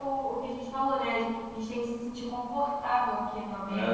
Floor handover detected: Yes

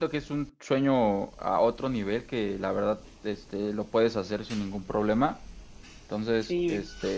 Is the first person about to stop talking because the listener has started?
No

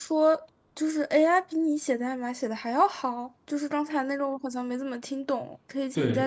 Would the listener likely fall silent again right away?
No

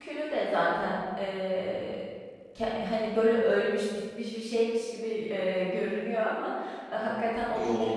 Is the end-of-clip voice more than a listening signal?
No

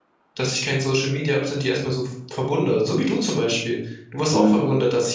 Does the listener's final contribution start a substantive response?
No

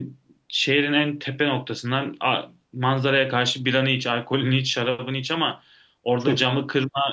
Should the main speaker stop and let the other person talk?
No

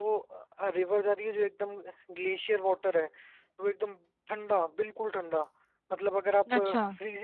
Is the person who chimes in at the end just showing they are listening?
Yes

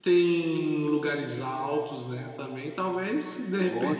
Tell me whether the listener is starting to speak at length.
No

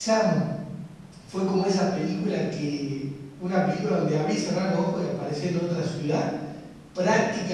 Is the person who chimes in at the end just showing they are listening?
Yes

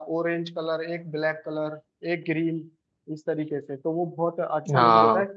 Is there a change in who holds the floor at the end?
No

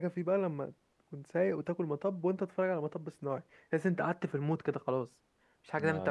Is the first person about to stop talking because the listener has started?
Yes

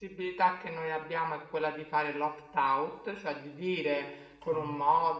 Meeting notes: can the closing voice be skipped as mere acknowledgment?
Yes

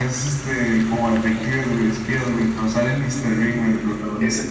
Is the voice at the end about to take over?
Yes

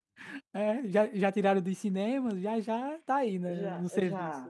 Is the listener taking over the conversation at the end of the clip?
Yes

